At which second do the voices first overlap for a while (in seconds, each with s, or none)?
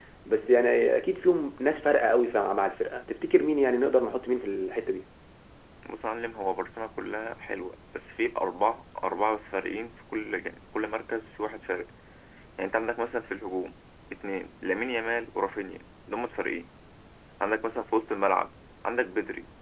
none